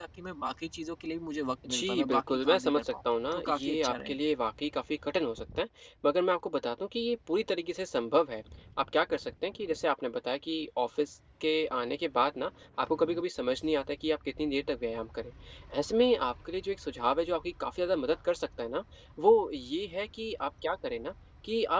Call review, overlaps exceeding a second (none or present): present